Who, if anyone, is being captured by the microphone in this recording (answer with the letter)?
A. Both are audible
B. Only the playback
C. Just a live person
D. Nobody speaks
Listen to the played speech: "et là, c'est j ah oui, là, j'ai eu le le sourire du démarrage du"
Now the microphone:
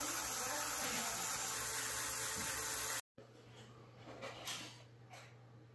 D